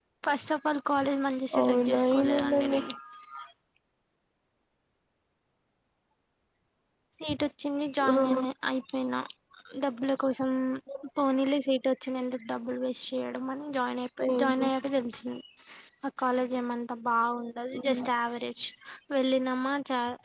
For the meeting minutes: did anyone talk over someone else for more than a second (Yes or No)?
Yes